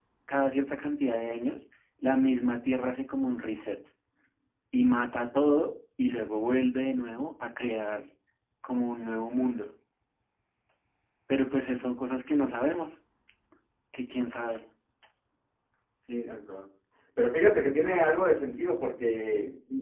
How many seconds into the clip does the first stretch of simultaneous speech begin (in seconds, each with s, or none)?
none